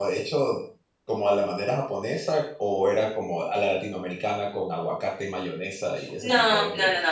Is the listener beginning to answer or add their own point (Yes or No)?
Yes